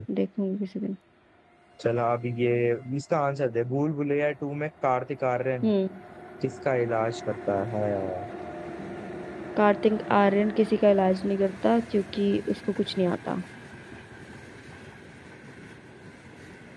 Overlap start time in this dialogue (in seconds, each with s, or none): none